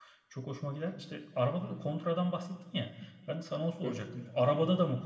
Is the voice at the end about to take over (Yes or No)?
No